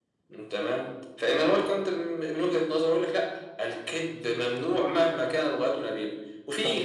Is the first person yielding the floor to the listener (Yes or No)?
No